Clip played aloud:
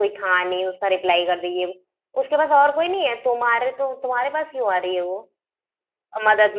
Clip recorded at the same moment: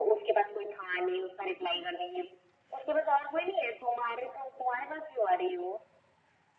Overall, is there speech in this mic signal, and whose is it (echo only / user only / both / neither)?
echo only